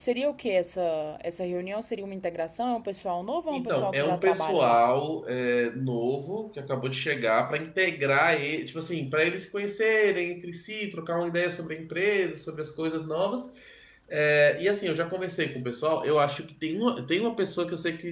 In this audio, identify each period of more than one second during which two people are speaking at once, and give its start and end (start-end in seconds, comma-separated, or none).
3.5-4.8